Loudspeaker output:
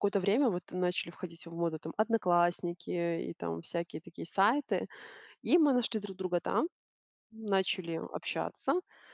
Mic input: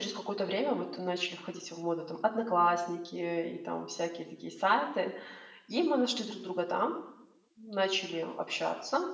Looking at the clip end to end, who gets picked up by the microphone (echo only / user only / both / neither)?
echo only